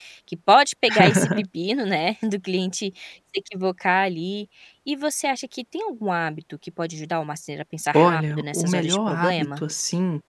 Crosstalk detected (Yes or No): Yes